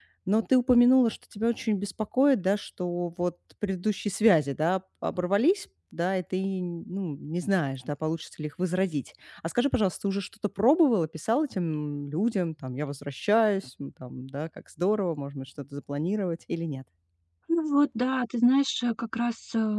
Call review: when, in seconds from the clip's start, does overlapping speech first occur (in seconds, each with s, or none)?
none